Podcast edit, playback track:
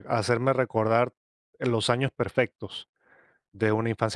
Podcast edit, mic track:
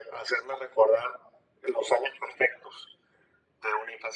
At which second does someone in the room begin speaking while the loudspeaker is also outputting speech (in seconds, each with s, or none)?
none